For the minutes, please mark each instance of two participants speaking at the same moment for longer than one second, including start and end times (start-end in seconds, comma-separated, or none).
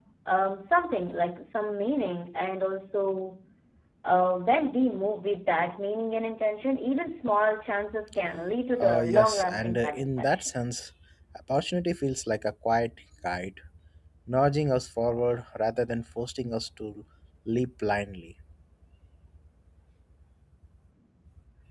8.8-10.5